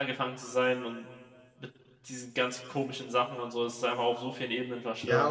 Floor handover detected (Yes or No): Yes